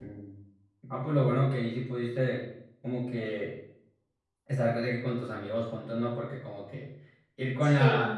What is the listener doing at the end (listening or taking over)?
listening